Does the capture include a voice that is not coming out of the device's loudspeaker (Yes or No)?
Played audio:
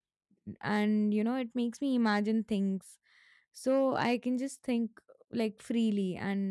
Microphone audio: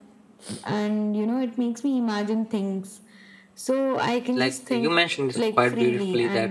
Yes